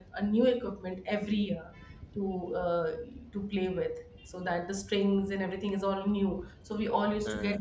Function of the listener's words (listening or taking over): listening